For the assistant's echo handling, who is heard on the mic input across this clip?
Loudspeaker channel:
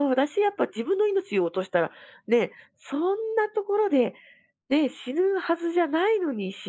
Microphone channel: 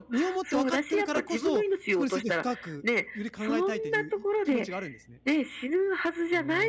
both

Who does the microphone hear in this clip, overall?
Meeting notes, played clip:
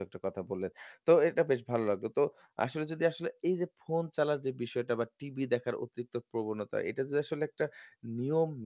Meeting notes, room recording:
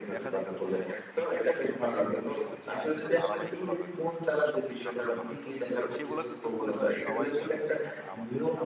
both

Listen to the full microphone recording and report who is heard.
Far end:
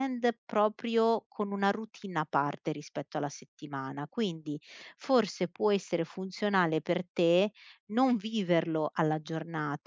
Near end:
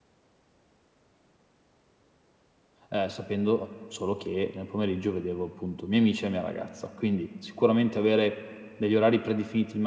user only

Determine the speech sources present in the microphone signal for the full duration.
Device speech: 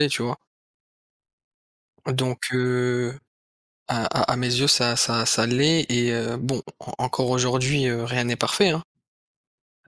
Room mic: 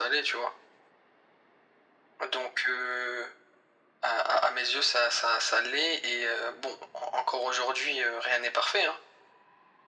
echo only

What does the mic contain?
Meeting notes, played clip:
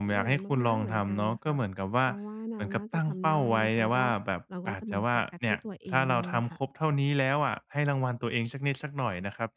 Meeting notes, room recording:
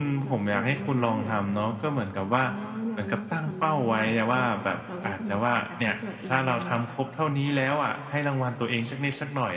echo only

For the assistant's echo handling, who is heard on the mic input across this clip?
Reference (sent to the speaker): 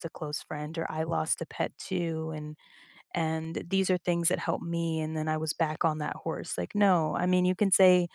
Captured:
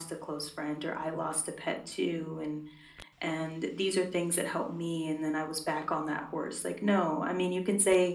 echo only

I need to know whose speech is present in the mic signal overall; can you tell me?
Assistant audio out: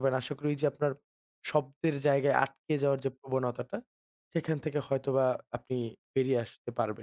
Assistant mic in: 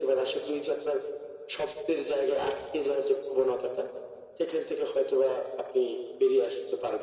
echo only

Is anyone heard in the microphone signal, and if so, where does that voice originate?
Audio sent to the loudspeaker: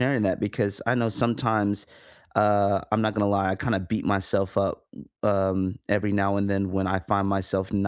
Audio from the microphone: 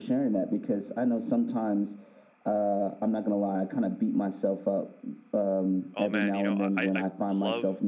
both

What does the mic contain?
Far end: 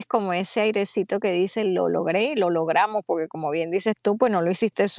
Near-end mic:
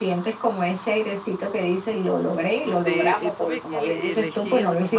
both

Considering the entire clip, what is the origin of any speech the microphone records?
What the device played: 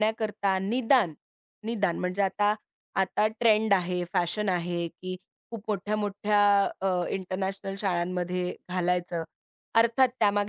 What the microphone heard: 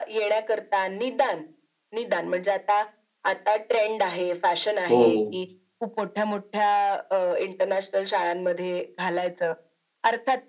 both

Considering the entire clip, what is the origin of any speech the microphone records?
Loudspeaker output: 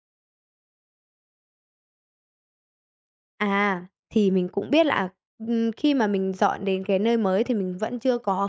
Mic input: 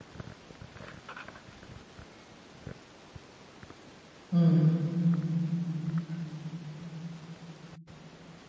user only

